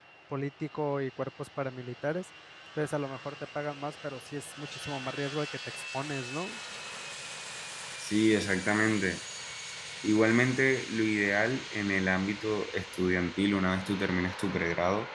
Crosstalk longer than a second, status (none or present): none